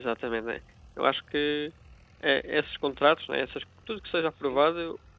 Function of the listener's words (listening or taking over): listening